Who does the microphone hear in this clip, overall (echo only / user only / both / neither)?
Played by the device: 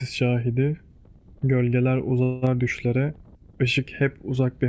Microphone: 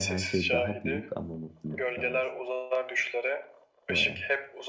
both